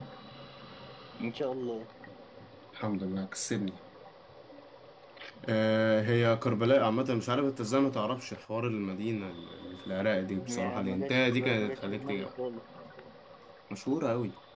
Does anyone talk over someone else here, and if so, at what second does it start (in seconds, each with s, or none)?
10.4 s